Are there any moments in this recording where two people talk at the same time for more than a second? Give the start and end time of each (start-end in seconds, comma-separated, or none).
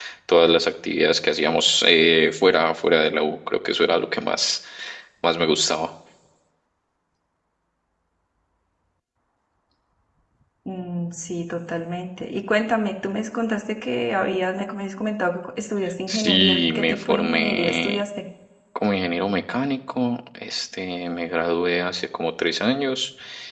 16.1-18.0